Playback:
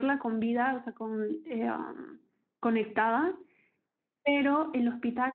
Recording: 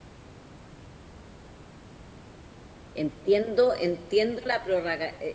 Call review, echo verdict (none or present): none